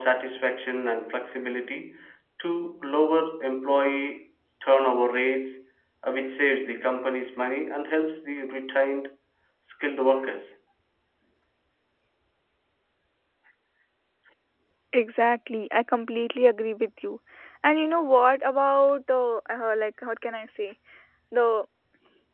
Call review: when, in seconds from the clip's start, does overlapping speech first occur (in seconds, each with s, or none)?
none